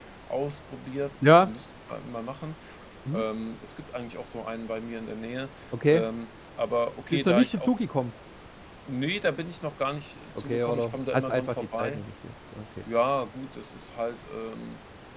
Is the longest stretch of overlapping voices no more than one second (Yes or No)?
No